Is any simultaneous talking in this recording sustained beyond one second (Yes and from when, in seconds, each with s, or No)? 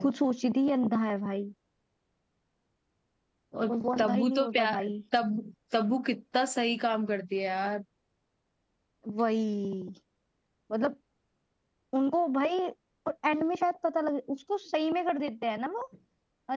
Yes, from 3.7 s